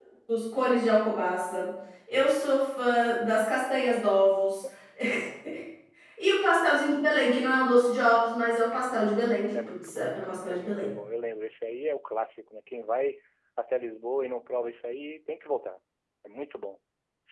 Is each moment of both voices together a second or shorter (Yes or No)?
No